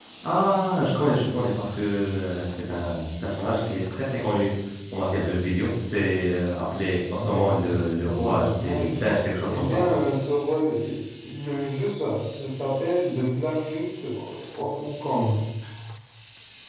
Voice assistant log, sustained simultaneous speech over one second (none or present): present